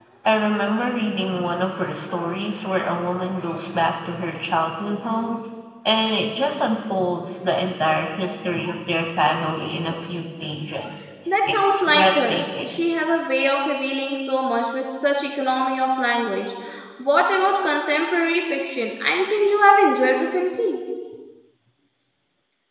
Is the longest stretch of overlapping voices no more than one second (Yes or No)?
No